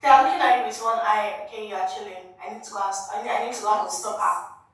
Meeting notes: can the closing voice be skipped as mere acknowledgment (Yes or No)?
No